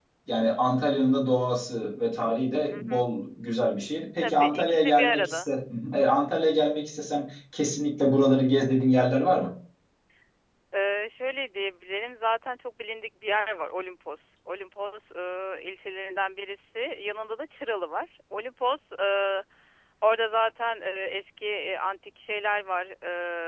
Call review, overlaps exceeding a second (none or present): present